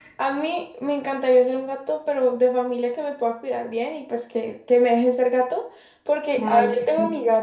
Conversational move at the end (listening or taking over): listening